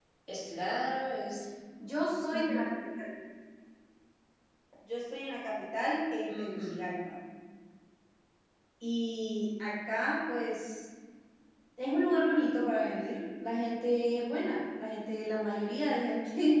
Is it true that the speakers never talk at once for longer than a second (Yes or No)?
Yes